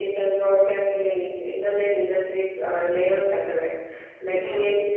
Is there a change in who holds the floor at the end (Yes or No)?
No